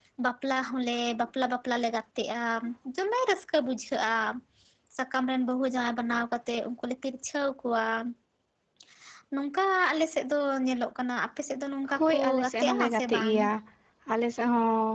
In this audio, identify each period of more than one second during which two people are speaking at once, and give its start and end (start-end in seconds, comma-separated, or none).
12.0-13.4